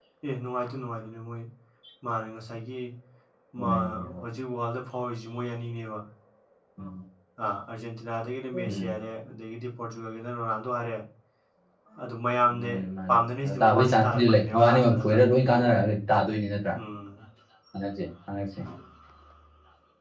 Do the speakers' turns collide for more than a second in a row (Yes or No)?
Yes